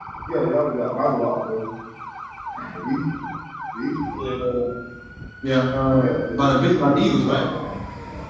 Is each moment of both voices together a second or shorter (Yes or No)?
No